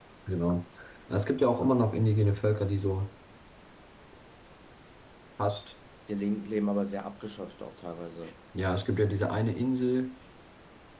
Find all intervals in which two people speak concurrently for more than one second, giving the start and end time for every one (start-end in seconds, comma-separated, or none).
none